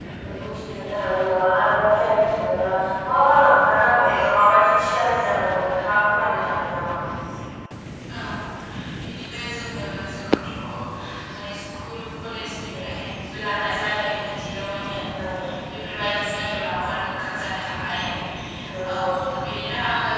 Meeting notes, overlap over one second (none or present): none